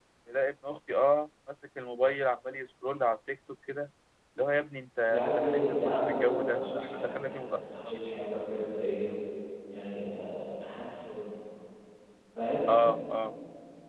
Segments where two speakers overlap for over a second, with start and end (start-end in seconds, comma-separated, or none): 5.0-8.0